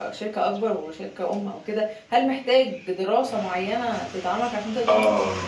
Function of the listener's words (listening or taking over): taking over